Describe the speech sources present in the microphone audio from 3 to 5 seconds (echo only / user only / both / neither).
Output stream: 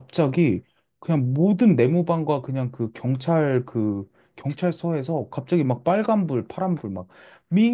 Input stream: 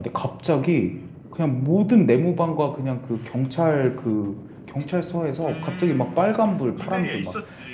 echo only